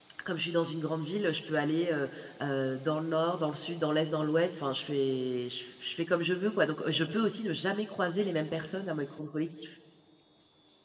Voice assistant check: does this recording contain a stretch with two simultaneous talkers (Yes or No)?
No